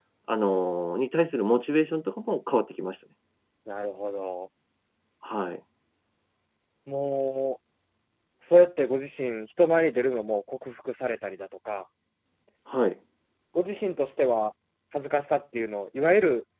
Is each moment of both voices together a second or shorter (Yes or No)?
Yes